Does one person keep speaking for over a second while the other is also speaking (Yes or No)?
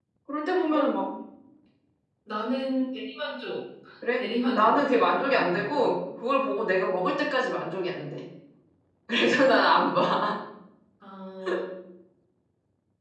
Yes